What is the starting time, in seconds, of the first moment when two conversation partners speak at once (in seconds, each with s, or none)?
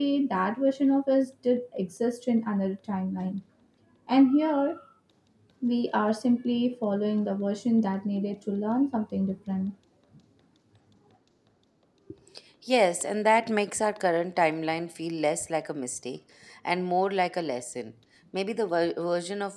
none